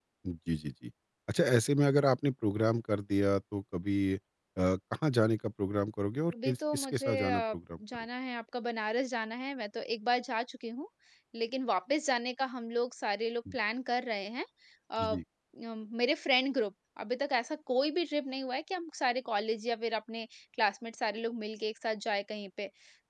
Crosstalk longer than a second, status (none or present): present